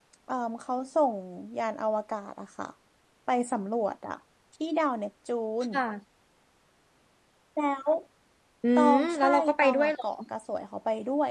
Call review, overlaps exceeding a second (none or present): present